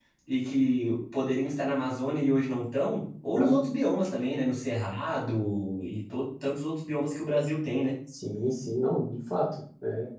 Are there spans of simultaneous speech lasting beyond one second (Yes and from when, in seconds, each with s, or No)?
No